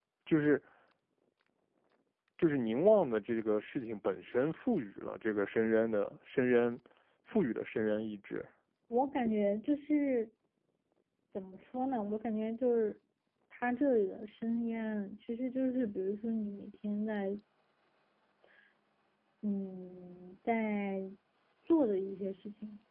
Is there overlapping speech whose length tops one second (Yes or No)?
No